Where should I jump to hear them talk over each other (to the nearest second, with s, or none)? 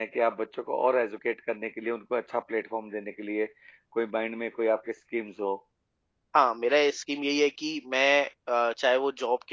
none